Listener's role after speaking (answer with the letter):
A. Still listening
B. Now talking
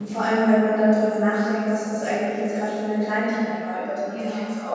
A